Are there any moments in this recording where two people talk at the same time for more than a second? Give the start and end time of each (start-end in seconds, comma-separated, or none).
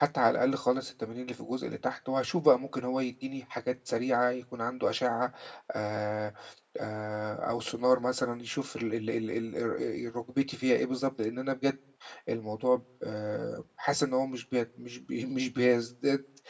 none